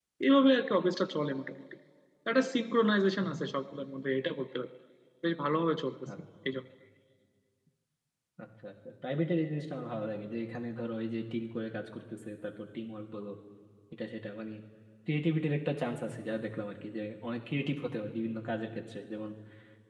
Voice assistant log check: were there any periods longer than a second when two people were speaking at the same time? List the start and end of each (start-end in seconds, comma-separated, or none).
none